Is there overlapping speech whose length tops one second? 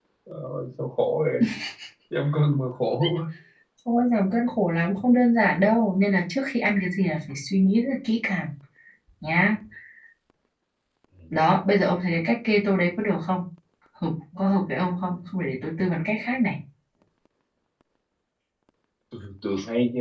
No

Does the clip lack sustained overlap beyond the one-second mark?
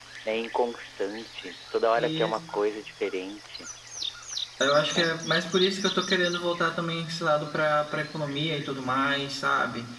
Yes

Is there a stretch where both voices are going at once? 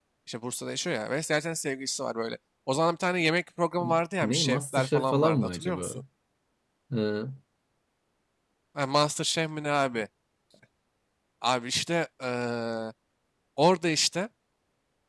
Yes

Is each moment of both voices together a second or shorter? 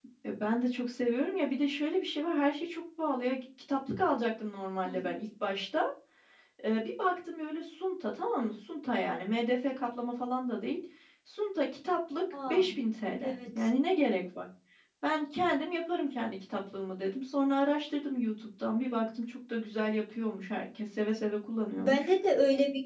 Yes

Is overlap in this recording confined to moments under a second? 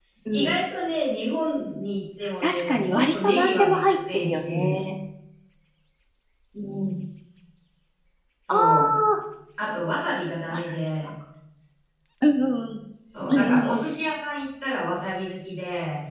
No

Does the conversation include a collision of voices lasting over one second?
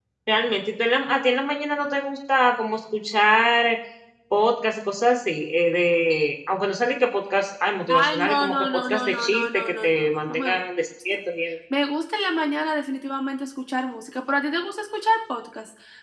Yes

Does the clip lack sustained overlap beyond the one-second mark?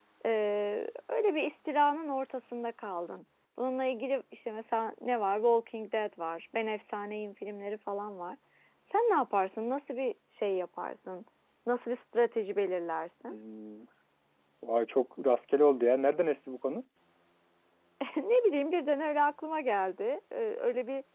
Yes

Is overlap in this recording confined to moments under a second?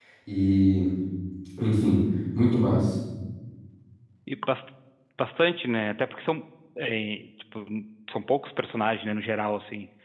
Yes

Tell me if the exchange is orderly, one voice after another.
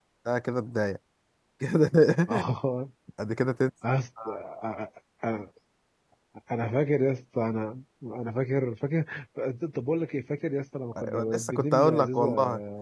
No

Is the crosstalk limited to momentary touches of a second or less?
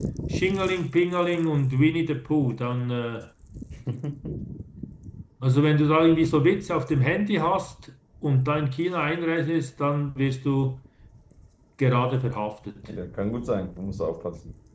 Yes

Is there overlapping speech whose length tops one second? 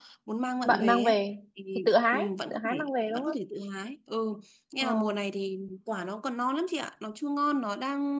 Yes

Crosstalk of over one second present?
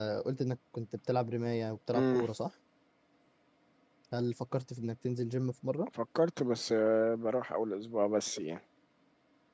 No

